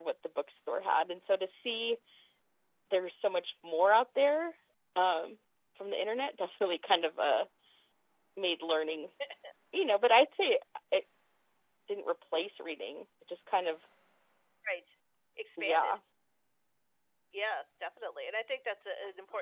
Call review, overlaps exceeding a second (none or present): none